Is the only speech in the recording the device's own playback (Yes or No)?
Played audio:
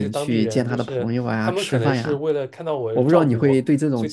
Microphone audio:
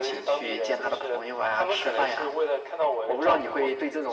Yes